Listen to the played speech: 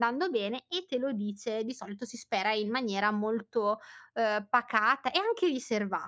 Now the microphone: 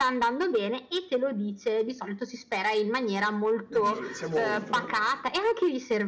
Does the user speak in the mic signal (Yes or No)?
Yes